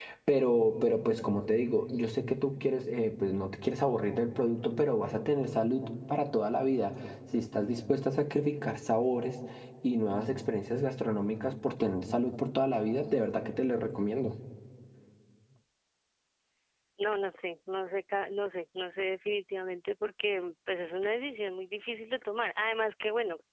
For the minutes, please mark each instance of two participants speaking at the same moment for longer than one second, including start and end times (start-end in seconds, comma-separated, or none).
none